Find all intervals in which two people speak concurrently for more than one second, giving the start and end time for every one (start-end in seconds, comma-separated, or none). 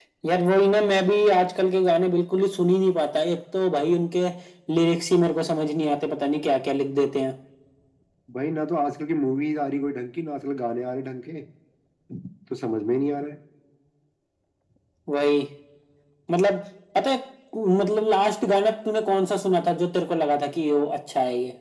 none